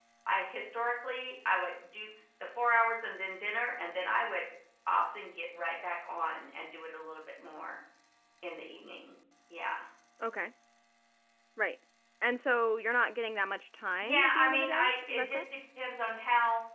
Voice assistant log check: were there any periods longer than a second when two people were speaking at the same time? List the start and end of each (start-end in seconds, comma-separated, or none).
14.0-15.4